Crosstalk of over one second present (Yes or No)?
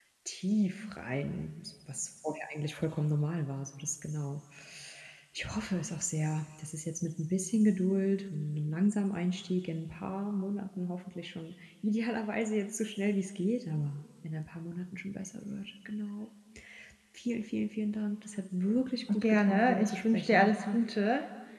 Yes